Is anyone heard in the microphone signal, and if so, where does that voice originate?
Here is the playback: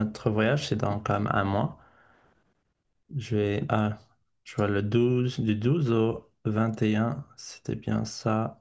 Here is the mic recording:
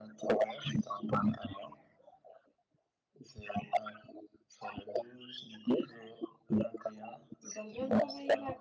both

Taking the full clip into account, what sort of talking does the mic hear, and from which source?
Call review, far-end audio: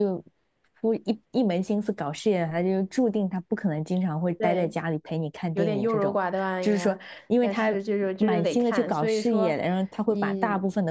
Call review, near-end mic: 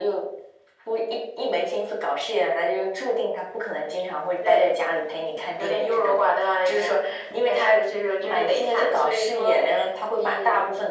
echo only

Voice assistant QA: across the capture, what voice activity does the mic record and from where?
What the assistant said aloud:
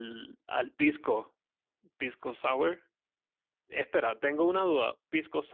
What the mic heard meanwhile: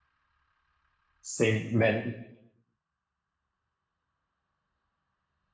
user only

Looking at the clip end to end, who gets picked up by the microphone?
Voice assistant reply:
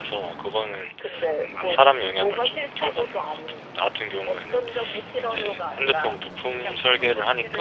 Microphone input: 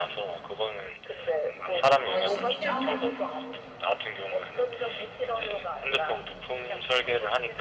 both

